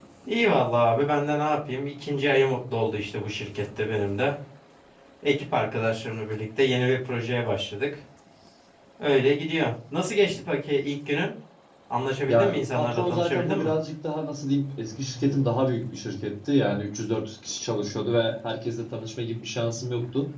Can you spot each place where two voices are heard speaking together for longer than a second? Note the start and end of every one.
12.3-13.7

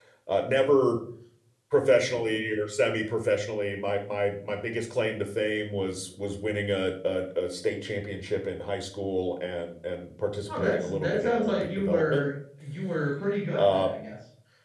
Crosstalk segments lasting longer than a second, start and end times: 10.5-12.2

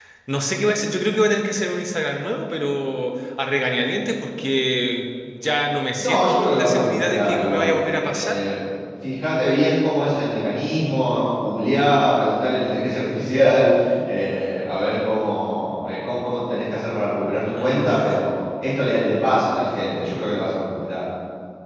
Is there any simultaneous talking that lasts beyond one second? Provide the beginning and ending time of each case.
6.0-8.4

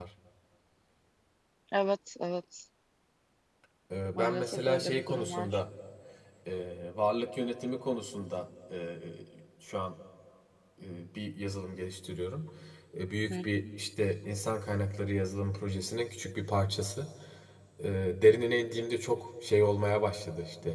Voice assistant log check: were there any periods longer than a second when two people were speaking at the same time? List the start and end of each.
4.1-5.6

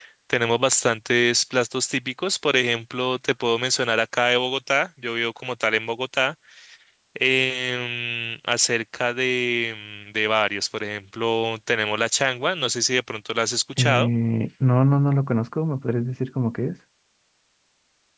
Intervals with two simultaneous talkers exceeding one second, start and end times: none

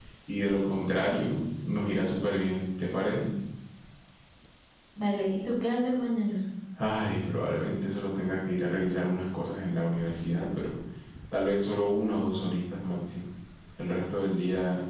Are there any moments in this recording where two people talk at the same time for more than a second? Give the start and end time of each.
none

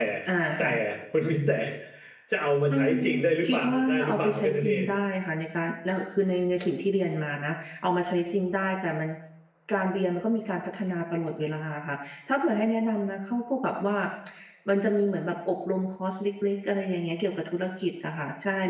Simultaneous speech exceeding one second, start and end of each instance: 3.4-4.8

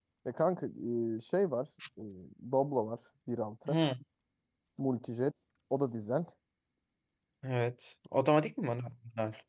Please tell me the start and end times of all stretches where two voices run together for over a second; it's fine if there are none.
none

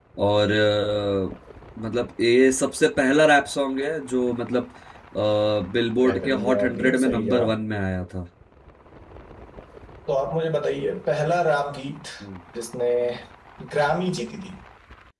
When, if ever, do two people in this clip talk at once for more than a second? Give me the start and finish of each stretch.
6.0-7.6

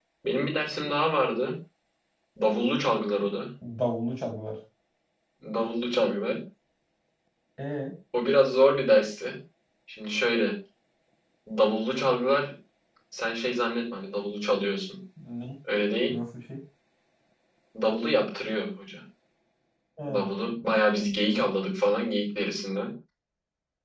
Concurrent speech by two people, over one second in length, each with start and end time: none

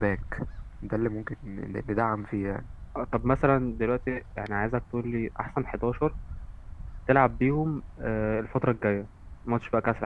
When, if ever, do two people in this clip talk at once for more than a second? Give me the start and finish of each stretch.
none

